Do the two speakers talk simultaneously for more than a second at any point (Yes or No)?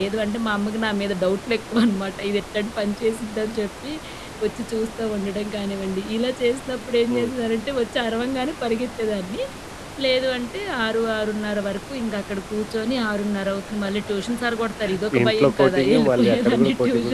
Yes